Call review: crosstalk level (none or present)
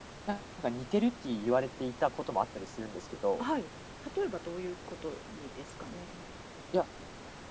none